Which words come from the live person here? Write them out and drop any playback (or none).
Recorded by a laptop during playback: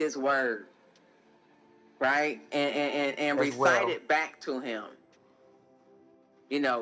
as well